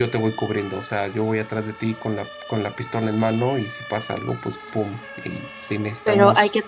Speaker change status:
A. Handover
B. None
A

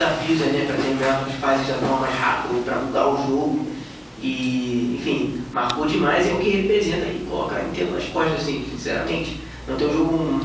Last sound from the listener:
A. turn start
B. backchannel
B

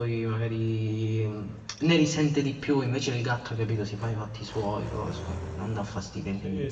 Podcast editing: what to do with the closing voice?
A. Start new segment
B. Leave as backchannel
A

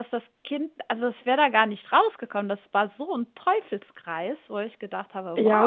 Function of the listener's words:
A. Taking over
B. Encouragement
A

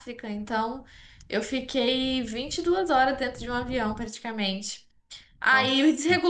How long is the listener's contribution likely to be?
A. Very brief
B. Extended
A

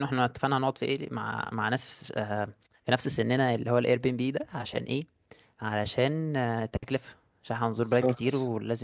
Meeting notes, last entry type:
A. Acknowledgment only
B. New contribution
A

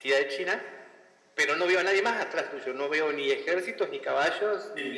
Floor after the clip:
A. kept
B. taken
B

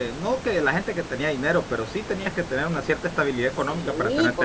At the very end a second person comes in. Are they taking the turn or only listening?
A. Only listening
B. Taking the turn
B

